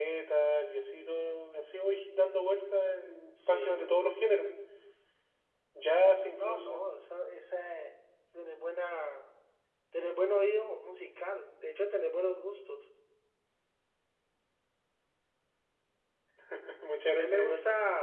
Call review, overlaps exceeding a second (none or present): none